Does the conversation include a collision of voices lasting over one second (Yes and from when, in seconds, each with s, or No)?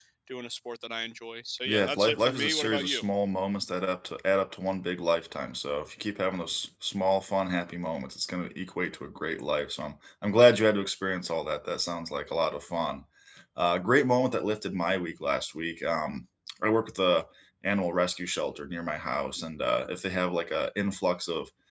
Yes, from 1.6 s